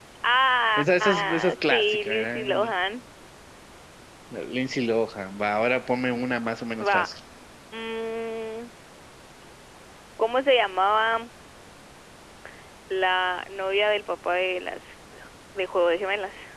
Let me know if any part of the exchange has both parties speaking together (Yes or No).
Yes